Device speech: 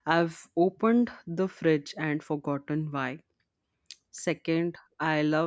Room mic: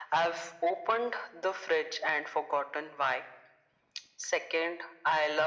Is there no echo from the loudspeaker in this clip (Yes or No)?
No